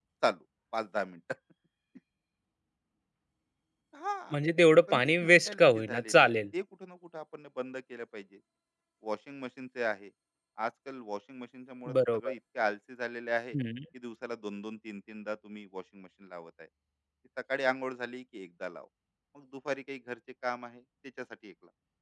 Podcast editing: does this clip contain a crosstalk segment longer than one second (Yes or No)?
Yes